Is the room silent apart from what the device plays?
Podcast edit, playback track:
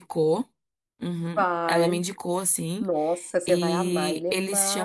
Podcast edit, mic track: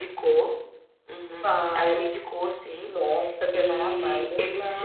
Yes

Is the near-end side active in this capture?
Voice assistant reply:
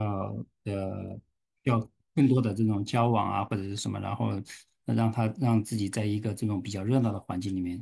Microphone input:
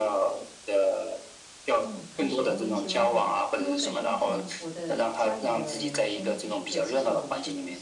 Yes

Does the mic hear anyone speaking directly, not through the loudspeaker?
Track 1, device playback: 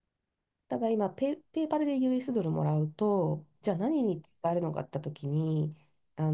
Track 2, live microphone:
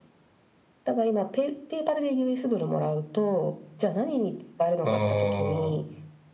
Yes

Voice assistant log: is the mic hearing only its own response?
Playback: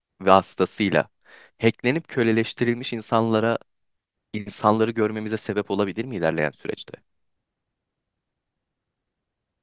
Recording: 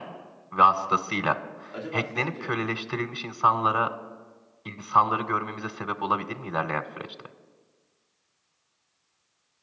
No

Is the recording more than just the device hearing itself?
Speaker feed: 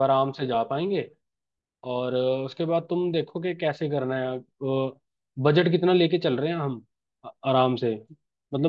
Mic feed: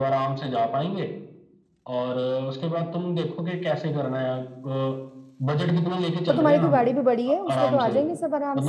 Yes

